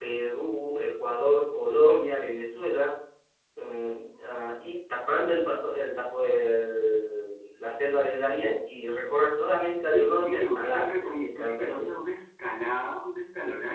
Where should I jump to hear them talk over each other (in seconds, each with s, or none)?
9.8 s